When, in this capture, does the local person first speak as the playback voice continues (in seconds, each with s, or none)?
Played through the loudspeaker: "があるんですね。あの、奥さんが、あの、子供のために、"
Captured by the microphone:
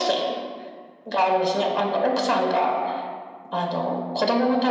none